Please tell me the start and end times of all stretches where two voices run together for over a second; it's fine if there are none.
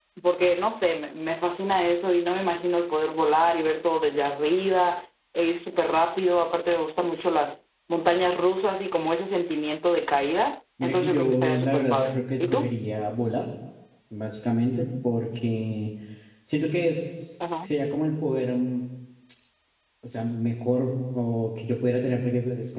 10.8-12.7

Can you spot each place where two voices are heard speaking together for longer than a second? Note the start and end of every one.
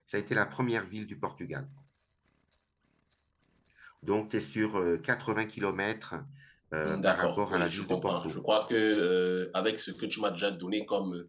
6.8-8.4

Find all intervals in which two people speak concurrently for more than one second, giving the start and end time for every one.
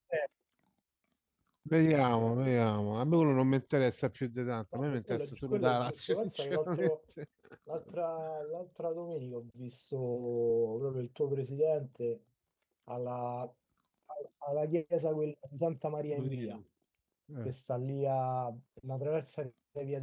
4.7-6.9

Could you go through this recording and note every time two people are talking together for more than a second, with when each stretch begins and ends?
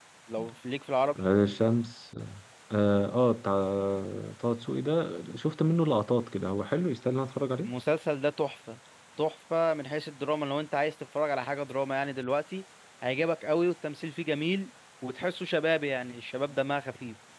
none

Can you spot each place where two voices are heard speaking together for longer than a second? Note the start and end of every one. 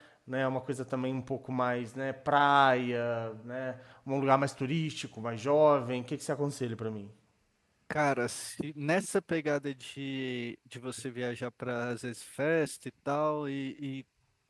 none

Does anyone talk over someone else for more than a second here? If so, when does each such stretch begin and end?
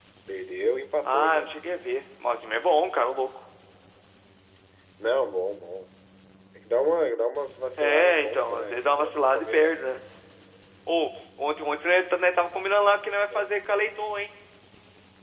7.8-9.8

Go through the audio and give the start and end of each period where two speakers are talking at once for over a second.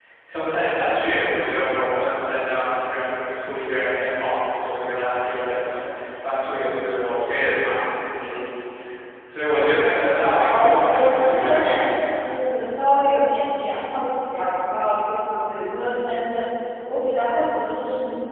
10.5-11.9

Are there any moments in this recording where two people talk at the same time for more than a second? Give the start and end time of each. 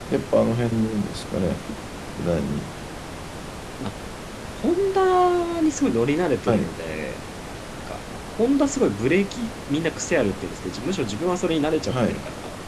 none

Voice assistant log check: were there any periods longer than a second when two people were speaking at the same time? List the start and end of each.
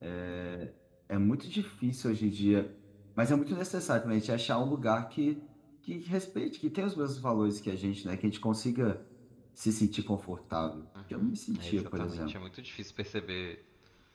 11.1-12.3

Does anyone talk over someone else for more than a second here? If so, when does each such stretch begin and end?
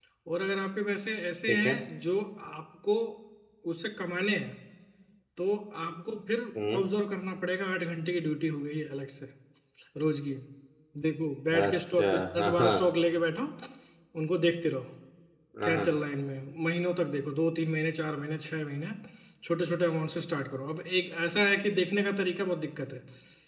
11.6-12.8

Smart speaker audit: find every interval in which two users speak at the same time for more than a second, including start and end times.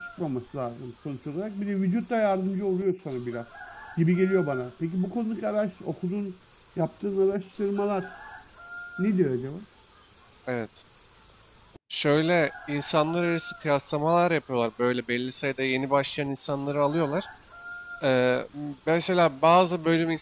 none

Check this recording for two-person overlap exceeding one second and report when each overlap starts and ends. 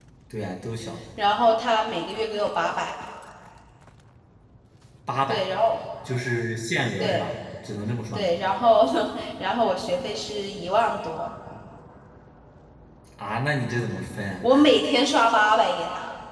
none

